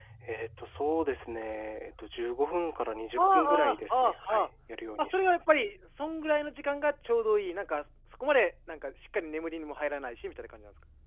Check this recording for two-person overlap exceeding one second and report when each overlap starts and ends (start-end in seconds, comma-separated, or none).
3.2-4.4